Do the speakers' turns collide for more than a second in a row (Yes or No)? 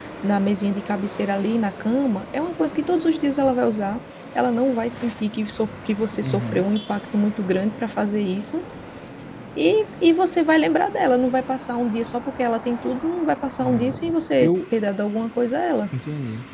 No